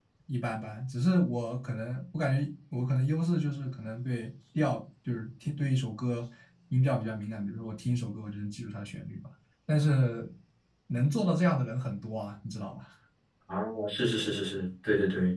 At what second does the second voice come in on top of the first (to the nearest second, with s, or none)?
none